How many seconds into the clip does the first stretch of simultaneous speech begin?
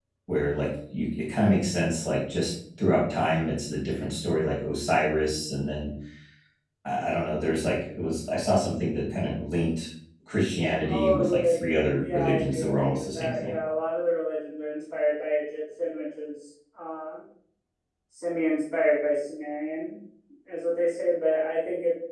10.8 s

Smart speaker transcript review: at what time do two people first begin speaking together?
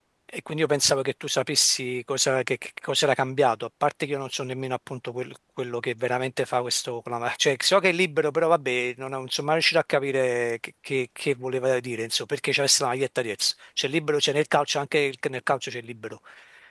none

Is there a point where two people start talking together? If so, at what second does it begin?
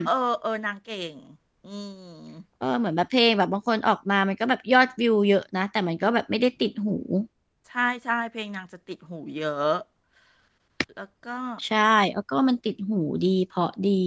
none

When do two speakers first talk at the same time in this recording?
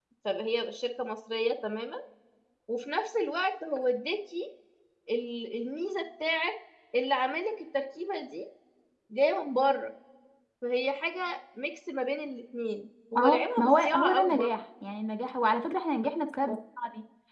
13.2 s

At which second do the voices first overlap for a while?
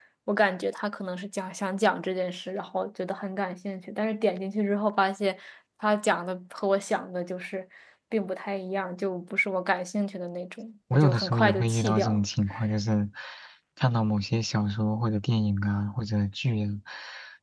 10.9 s

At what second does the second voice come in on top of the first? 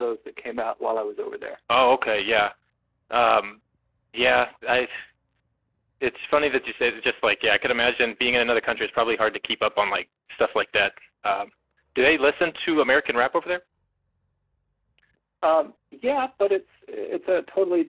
none

